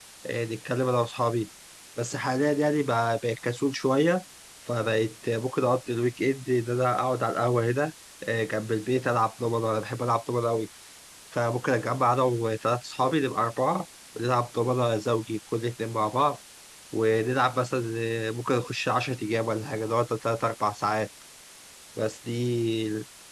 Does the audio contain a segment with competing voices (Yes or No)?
No